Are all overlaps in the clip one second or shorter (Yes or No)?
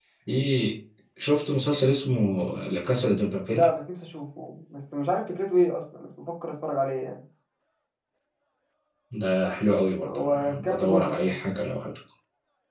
No